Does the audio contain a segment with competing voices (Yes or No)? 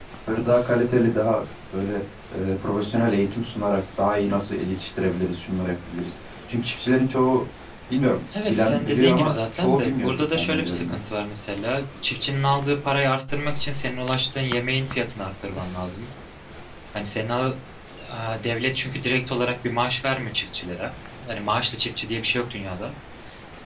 Yes